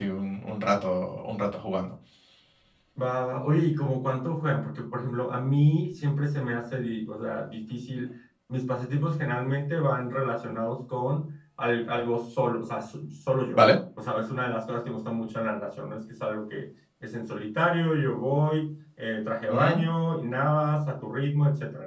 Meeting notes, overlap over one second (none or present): none